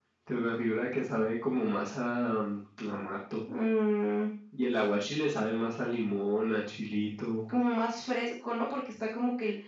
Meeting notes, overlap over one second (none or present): none